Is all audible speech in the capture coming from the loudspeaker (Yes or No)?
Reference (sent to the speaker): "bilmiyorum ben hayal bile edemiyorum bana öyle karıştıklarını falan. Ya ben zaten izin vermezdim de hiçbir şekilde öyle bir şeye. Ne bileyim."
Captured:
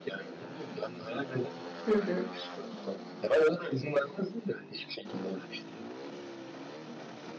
No